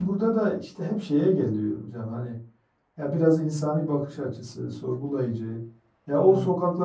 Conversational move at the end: listening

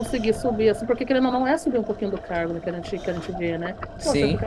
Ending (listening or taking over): listening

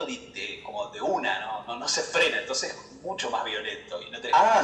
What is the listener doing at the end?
taking over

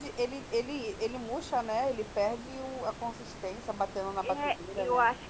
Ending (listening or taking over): taking over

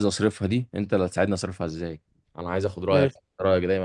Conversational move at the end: listening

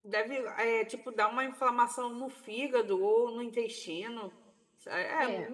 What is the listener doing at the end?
listening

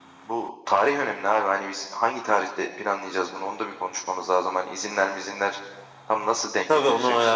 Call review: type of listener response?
taking over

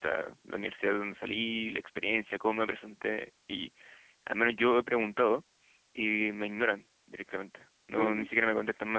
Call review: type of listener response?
listening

